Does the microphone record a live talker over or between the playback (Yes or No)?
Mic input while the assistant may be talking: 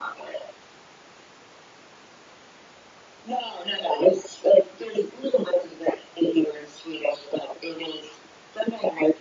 No